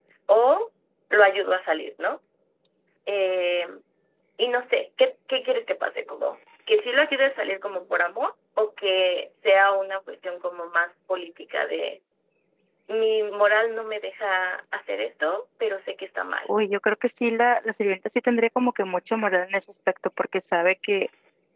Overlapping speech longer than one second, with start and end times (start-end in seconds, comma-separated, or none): none